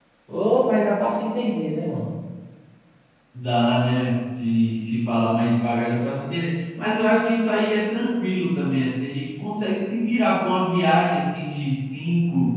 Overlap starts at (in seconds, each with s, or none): none